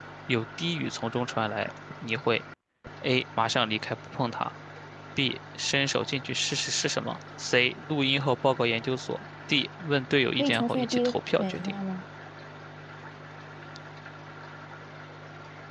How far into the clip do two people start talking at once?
10.4 s

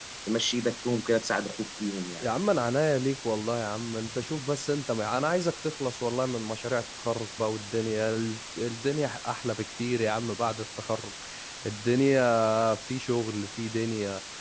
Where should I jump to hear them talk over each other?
none

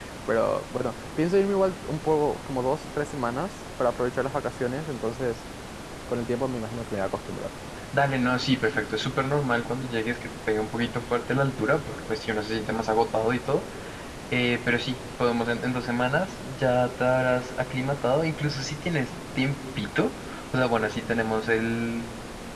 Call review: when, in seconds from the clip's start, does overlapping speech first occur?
none

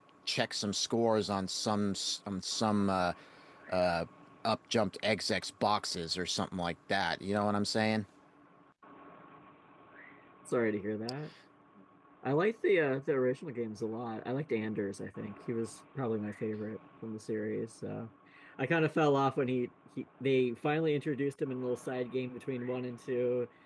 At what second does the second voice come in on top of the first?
none

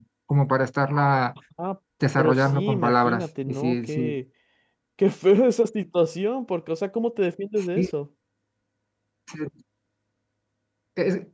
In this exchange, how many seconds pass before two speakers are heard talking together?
2.2 s

